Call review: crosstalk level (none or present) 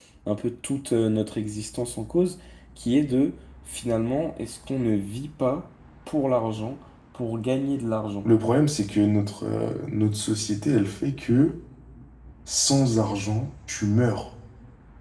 none